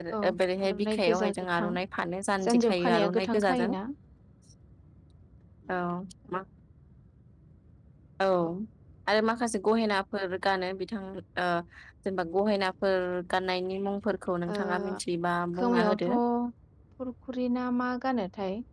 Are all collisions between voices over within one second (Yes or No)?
No